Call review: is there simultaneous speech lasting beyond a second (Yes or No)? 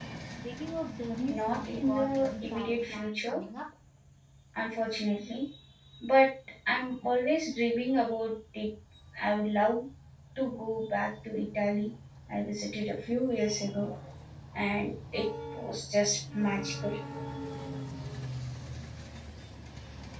Yes